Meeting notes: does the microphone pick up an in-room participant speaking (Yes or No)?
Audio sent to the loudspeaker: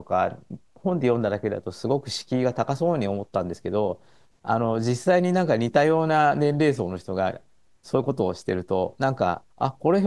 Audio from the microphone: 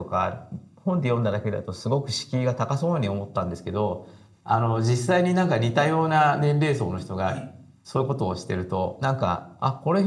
Yes